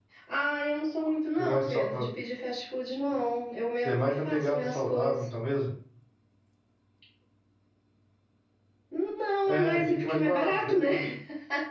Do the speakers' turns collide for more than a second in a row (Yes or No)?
Yes